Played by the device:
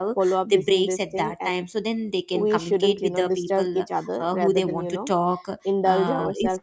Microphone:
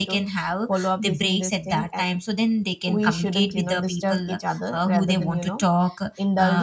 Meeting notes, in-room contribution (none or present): none